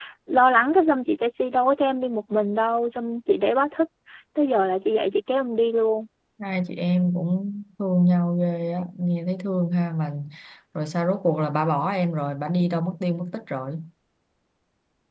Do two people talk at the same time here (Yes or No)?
No